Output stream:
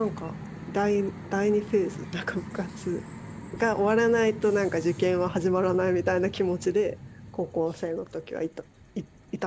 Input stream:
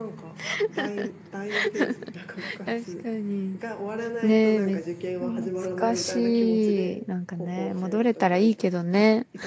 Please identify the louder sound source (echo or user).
user